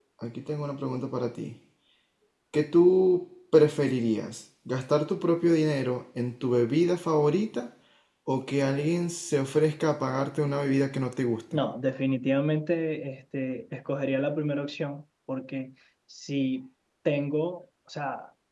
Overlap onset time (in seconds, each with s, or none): none